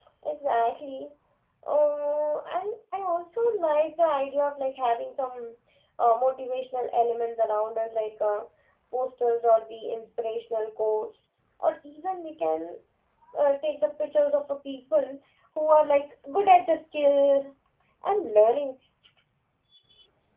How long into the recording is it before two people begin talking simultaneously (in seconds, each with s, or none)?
none